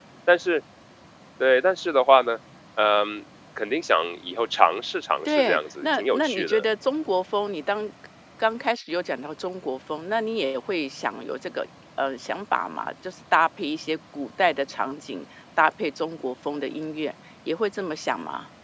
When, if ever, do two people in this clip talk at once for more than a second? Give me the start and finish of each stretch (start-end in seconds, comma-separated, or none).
5.2-6.6